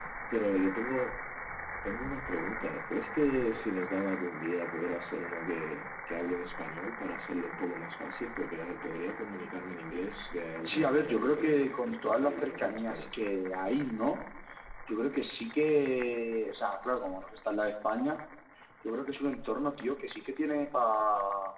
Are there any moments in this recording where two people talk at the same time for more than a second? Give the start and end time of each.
10.7-13.1

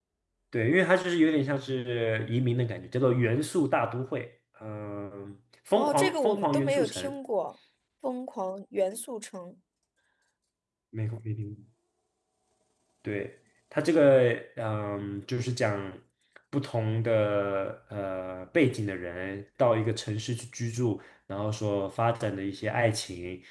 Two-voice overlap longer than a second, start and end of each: 5.8-7.1

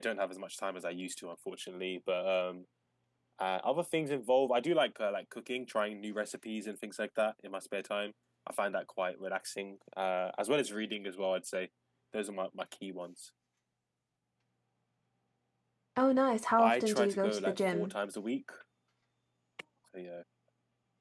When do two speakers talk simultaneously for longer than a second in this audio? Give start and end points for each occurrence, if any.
16.6-17.9

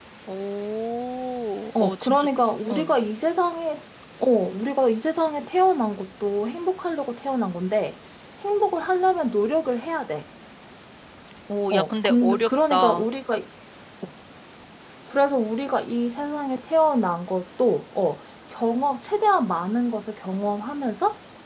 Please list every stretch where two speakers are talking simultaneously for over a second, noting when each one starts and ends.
11.7-13.1

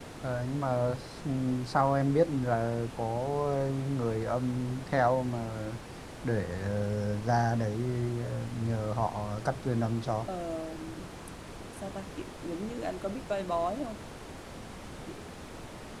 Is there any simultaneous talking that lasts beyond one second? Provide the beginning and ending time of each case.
none

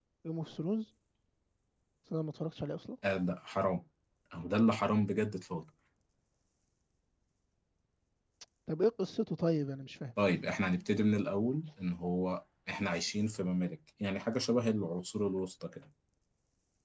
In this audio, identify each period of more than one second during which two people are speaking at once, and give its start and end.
none

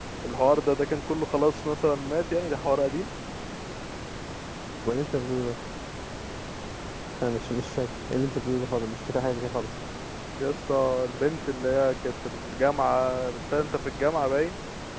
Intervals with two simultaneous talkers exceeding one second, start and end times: none

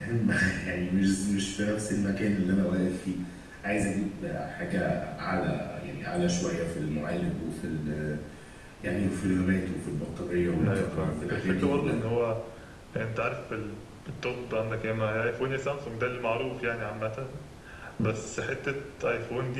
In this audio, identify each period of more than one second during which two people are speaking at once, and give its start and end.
10.6-12.0

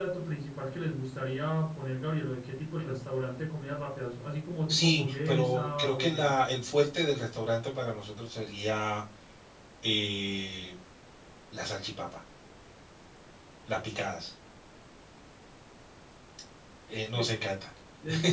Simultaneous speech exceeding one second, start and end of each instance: 4.7-6.3

